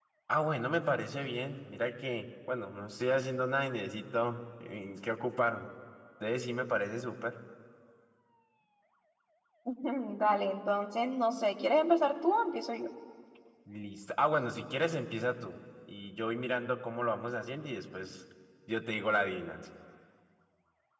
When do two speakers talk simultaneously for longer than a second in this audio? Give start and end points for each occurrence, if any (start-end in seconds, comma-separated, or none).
none